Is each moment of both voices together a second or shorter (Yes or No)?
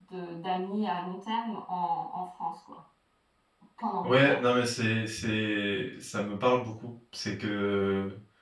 Yes